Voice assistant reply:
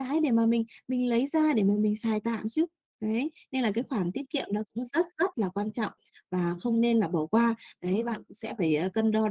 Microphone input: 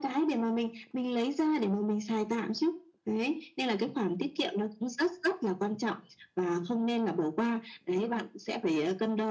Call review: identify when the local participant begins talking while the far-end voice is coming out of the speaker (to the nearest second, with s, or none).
none